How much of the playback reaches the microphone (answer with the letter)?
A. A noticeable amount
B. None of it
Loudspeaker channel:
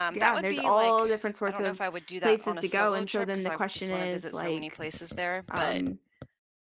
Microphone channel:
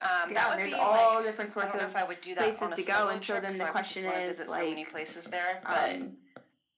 A